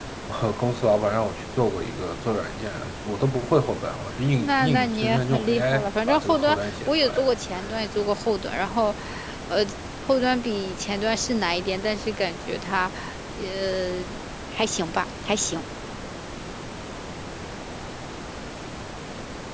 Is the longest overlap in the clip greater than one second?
Yes, from 4.4 s

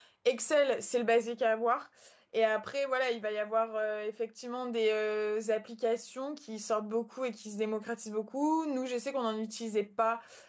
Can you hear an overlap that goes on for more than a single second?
No

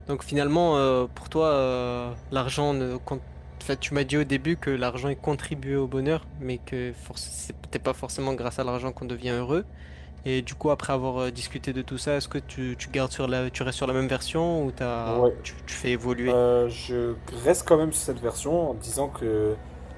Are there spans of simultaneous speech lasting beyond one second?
No

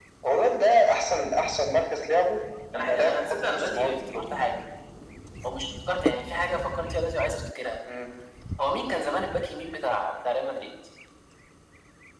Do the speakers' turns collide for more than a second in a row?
Yes, from 2.7 s

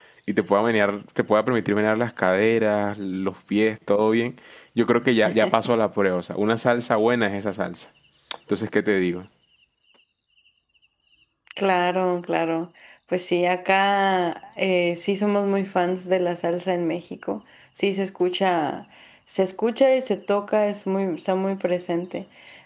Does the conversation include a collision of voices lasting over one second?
No

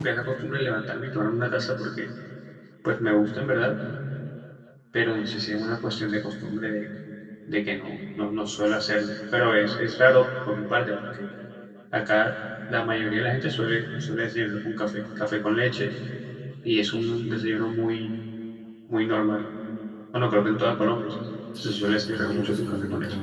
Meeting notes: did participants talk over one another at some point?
Yes, from 21.6 s

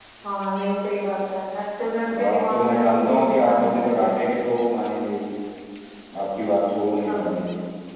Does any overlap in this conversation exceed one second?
Yes, from 2.2 s

